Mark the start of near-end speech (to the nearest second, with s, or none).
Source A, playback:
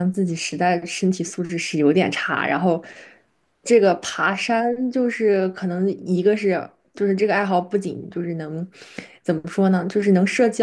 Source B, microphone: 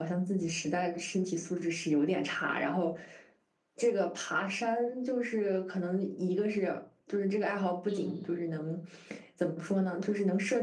8 s